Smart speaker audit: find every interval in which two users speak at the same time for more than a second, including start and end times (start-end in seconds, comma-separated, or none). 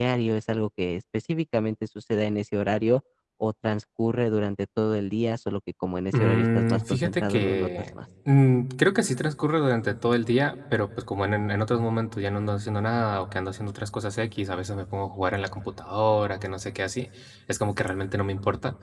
6.1-7.7